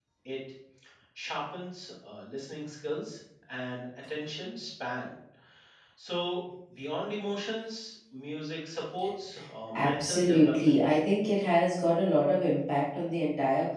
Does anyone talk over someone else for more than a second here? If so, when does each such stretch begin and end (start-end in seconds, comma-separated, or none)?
9.7-11.0